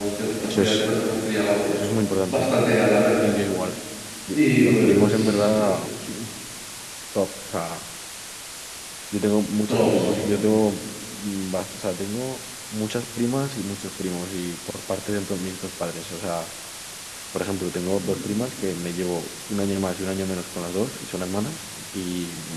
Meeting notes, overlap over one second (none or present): present